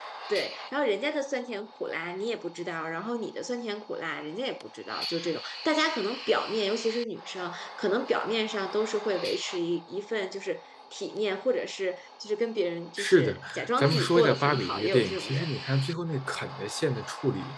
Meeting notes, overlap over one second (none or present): present